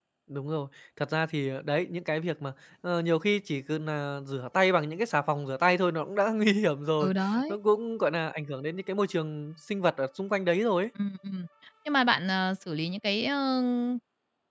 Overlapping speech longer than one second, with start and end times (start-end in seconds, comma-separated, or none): none